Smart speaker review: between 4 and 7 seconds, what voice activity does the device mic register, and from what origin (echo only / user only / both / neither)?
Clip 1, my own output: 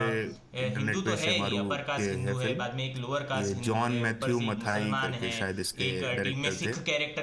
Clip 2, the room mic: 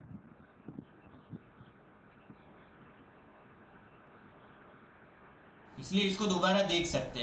user only